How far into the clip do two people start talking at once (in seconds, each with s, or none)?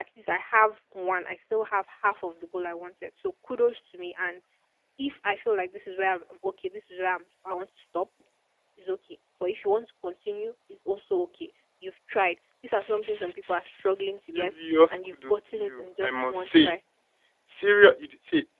12.7 s